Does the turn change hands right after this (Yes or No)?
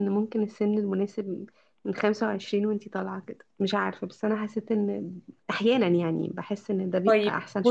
Yes